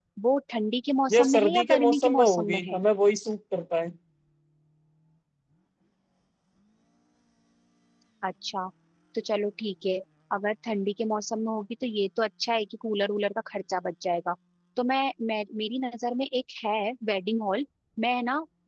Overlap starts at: 1.1 s

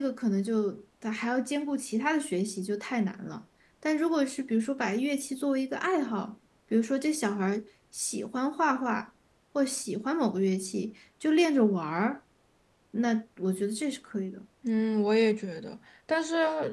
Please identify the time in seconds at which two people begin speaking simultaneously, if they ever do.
none

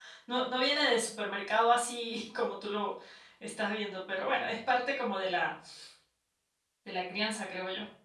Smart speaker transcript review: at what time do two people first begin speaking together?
none

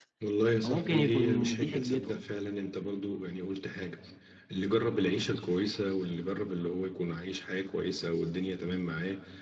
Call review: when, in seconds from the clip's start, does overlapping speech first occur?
0.6 s

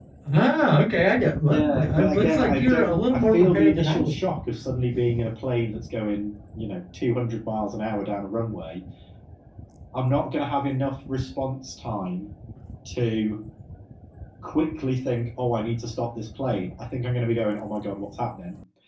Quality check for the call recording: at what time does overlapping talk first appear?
1.5 s

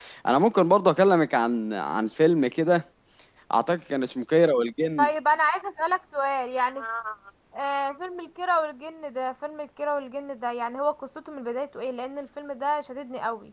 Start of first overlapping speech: none

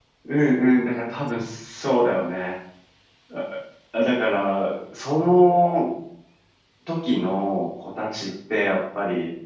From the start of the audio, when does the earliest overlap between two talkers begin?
none

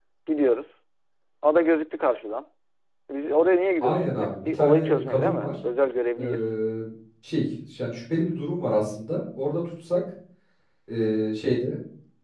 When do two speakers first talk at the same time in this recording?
3.8 s

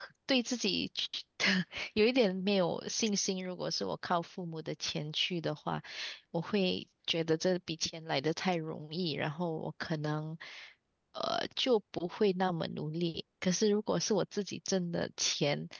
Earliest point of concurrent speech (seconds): none

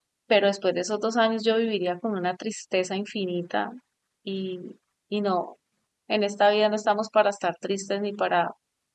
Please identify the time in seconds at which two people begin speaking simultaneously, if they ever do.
none

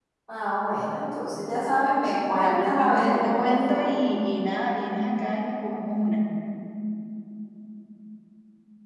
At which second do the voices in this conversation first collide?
2.3 s

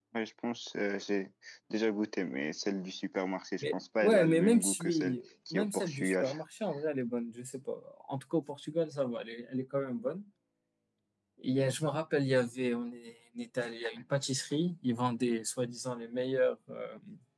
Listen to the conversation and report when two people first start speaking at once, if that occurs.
3.6 s

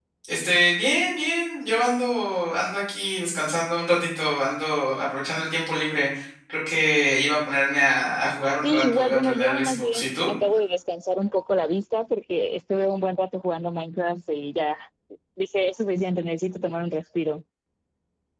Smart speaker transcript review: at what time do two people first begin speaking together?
8.6 s

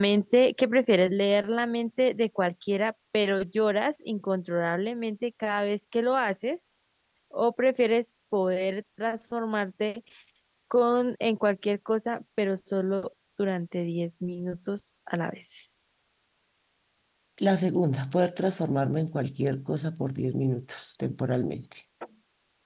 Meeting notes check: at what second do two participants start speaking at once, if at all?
none

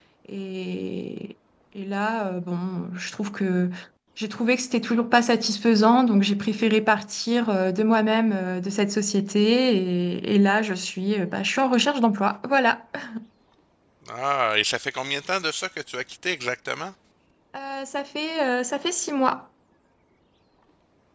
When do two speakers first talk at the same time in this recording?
none

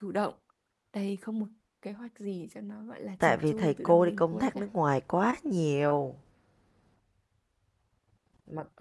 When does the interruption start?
3.2 s

